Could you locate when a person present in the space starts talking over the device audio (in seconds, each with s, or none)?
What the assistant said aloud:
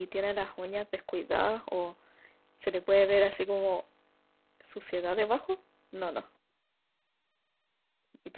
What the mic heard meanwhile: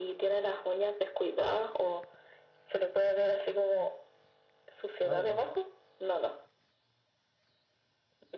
5.0 s